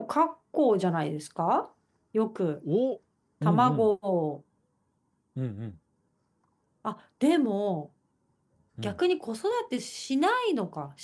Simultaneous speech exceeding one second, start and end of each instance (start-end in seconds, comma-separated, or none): none